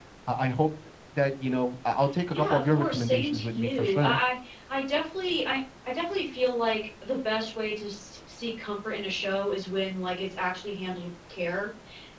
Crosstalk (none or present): present